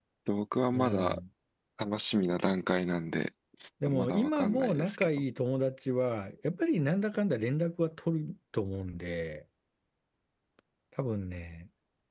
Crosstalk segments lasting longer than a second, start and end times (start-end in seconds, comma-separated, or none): 3.9-5.1